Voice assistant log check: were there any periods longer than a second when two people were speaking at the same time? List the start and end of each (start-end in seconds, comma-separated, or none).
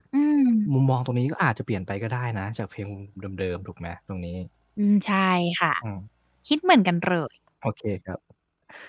none